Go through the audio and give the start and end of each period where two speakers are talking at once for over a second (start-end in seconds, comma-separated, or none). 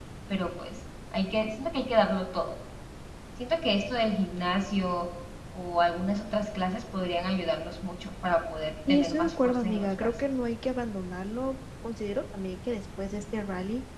8.9-10.1